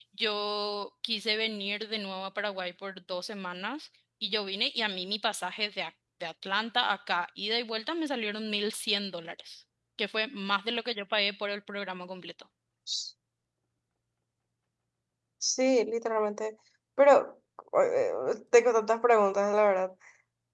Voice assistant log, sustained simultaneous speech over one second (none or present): none